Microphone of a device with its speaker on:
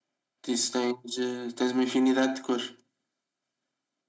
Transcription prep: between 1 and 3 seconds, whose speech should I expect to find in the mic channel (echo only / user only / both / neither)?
echo only